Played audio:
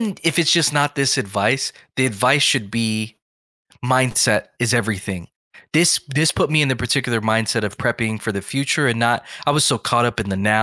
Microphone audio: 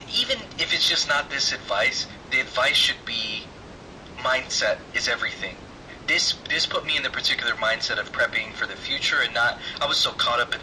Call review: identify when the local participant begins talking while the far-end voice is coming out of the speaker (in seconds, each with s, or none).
none